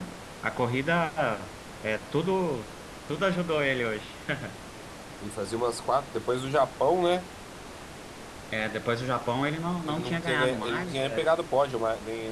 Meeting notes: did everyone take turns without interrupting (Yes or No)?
No